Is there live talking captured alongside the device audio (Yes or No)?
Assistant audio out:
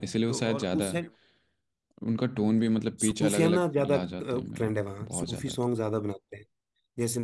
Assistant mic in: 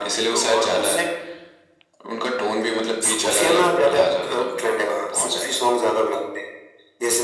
No